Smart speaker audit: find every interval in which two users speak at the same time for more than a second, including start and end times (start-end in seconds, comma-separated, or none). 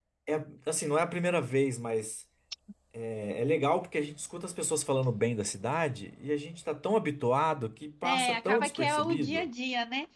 8.0-9.5